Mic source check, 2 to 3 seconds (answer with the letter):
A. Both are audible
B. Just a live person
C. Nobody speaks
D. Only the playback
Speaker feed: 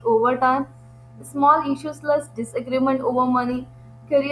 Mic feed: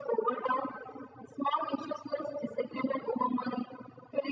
D